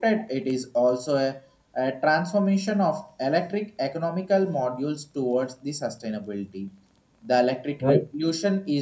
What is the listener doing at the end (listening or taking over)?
listening